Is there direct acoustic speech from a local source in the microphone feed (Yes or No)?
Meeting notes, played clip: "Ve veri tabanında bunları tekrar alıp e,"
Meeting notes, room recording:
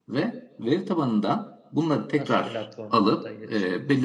Yes